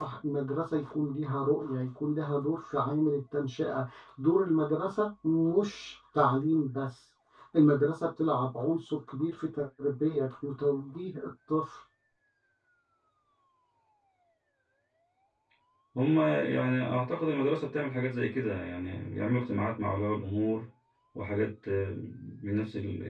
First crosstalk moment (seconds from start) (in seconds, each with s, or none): none